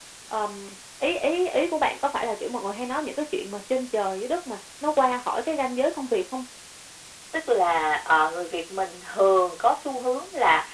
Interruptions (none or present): none